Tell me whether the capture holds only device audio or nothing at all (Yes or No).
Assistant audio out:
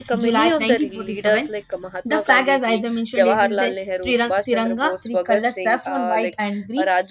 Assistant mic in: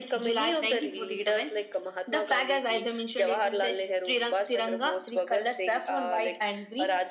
Yes